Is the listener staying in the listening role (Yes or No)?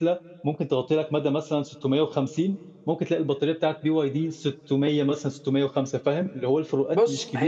No